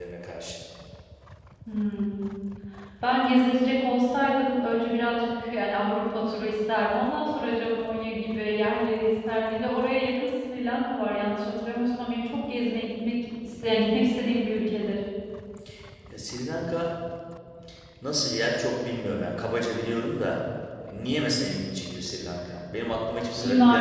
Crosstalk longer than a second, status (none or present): none